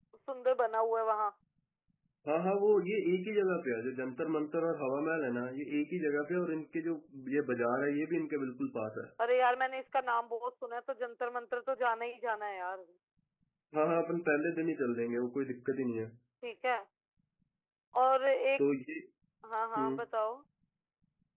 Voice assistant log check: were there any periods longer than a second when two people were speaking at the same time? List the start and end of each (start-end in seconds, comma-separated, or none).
none